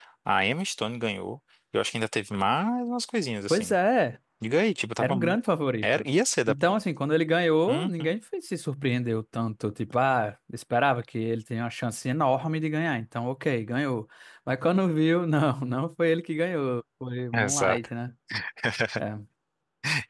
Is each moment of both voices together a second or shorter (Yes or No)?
Yes